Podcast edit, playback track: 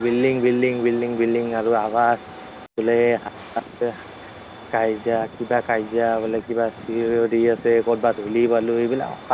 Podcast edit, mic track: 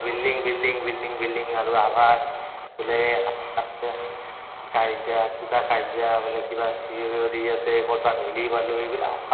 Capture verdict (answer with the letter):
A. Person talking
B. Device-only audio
B